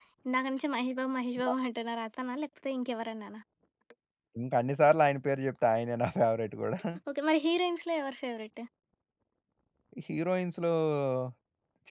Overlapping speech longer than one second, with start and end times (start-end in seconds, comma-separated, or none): none